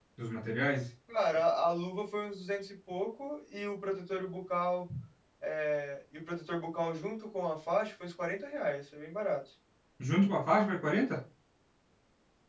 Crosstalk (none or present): none